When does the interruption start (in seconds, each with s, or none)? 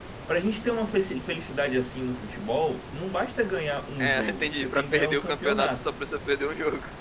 4.0 s